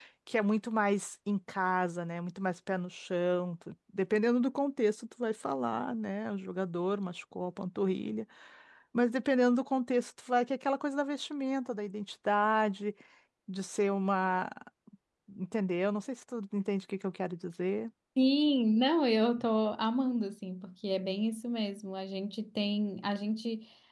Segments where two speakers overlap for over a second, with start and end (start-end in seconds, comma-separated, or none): none